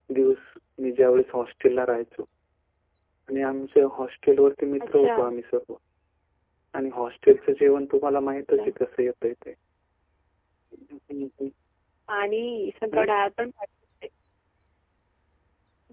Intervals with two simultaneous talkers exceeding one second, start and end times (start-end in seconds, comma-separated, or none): none